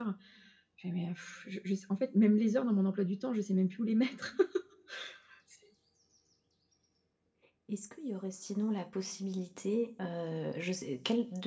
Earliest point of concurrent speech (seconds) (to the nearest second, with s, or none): none